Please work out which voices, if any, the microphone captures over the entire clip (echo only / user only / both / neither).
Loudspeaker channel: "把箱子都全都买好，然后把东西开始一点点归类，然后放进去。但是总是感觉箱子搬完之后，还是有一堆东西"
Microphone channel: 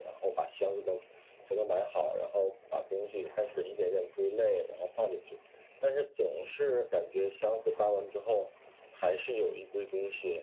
echo only